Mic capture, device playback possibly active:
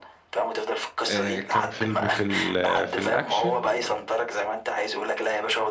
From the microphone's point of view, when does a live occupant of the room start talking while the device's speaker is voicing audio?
1.1 s

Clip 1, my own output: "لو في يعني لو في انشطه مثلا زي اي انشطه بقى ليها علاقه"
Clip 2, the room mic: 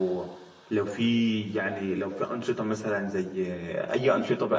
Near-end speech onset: none

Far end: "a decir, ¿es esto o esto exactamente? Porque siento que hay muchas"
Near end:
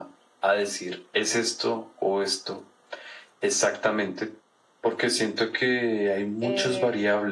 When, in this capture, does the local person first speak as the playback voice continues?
6.4 s

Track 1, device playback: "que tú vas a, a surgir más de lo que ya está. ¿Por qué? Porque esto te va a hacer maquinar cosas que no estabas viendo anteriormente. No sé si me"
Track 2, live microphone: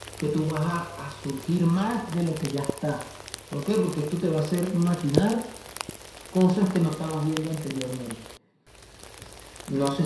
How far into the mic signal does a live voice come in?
none

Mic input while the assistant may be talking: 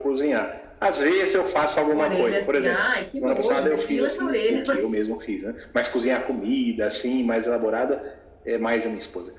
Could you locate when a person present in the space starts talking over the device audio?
1.9 s

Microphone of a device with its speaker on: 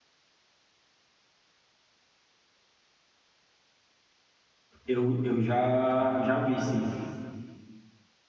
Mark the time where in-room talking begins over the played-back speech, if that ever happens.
4.8 s

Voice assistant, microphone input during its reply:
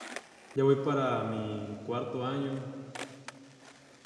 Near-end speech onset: 0.5 s

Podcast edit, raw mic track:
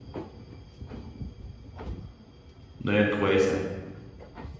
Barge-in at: 2.8 s

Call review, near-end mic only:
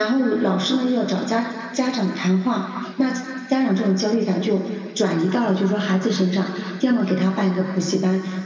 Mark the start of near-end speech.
none

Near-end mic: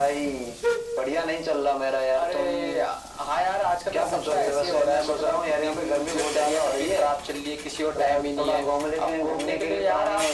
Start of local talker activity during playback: none

